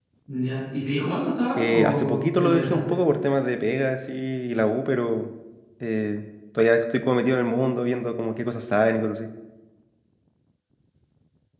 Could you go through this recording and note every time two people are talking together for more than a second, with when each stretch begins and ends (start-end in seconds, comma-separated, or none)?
1.6-3.0